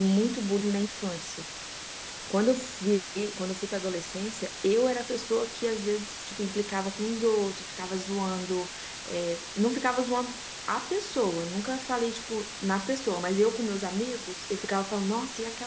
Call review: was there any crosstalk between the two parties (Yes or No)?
No